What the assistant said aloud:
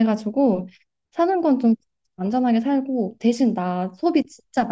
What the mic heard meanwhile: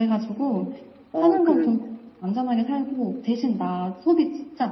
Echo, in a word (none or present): present